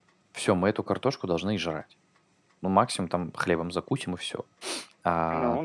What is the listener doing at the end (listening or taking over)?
listening